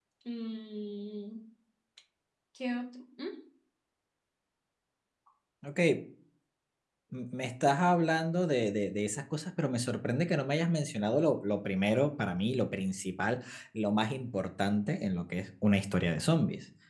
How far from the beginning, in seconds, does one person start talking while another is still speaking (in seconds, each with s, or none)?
none